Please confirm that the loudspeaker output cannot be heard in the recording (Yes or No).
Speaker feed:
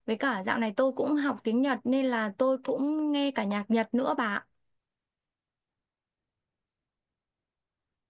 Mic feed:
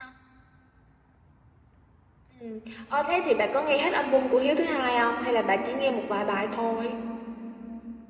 Yes